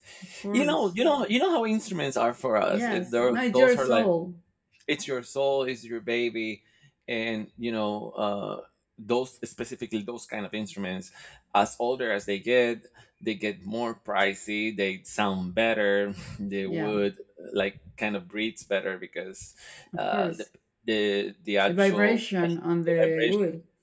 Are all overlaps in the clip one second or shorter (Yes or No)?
No